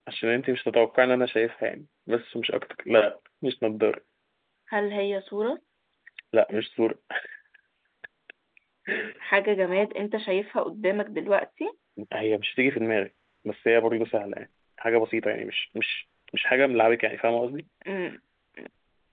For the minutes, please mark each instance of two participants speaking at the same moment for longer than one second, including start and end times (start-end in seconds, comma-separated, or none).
none